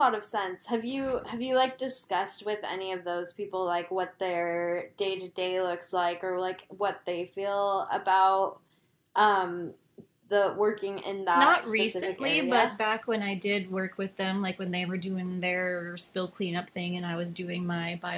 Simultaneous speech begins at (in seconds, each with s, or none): 11.3 s